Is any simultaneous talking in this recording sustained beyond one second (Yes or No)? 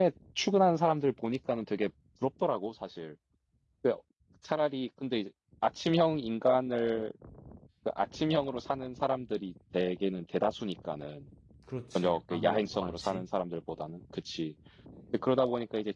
Yes